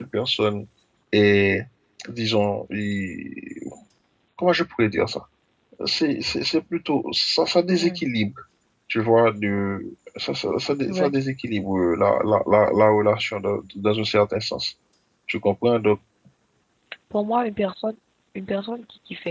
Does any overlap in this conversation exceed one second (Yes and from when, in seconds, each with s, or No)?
No